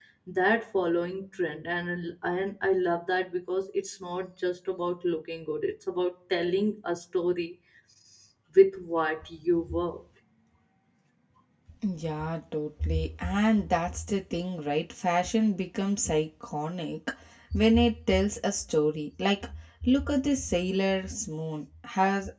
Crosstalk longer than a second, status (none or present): none